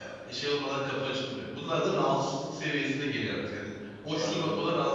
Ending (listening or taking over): listening